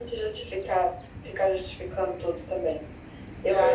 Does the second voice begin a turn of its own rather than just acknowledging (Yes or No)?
No